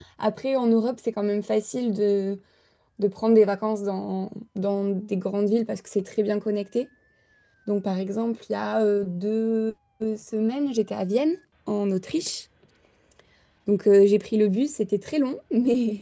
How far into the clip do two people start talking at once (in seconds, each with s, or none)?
none